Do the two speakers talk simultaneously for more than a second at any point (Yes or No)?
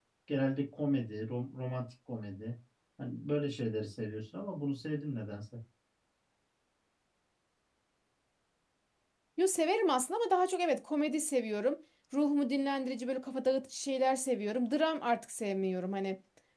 No